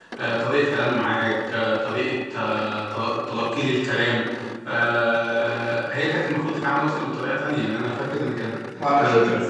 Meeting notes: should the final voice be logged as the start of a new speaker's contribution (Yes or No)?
No